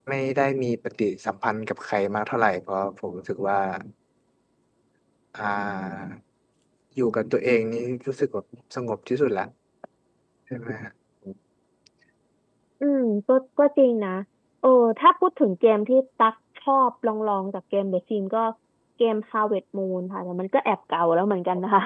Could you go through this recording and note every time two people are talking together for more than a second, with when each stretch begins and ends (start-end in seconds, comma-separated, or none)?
none